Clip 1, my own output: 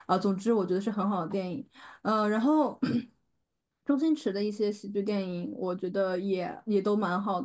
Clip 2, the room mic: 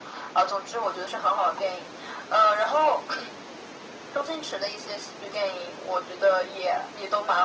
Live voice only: none

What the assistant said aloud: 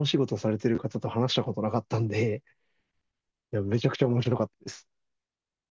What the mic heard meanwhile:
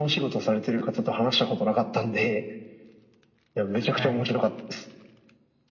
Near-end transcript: はい。

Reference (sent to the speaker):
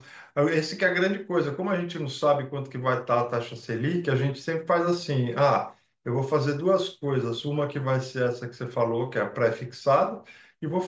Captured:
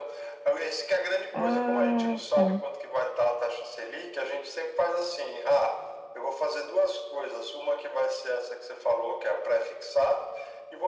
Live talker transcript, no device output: Ah, tá.

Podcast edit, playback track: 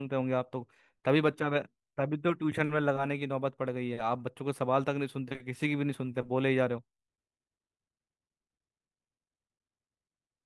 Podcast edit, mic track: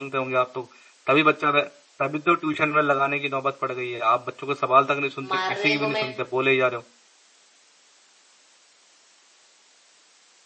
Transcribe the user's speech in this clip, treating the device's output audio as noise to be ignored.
मारने को मैं

